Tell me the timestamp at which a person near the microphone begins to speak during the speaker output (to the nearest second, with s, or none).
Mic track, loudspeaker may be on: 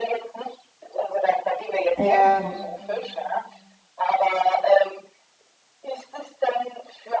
2 s